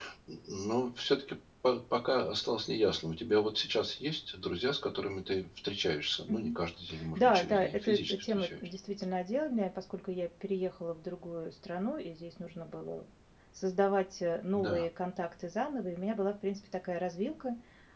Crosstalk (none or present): present